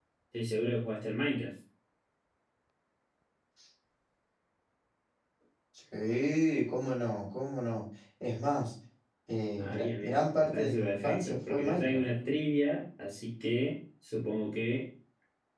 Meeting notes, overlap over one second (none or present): present